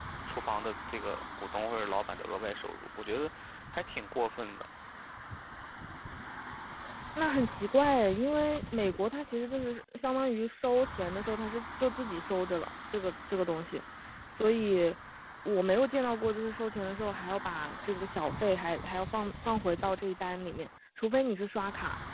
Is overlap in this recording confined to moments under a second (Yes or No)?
Yes